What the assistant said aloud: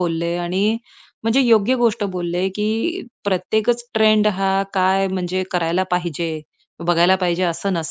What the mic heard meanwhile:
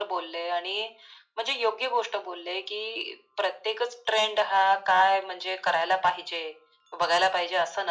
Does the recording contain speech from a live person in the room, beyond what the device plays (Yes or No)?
No